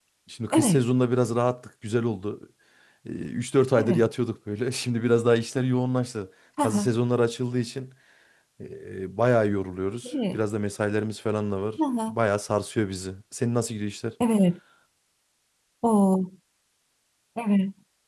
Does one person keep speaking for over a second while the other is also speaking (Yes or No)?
No